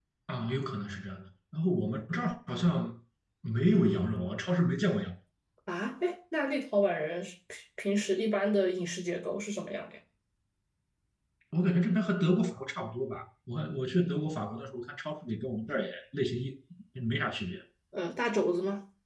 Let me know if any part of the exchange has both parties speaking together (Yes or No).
No